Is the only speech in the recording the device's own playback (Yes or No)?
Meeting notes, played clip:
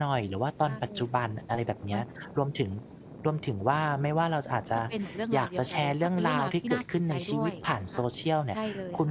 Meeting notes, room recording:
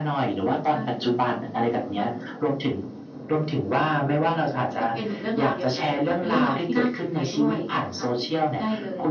Yes